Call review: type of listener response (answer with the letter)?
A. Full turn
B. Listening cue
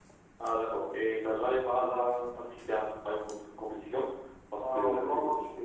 A